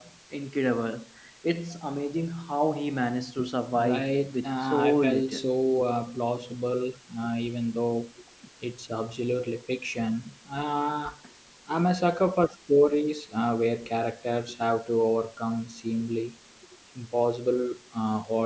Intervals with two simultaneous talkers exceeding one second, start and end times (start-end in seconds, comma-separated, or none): 3.8-5.4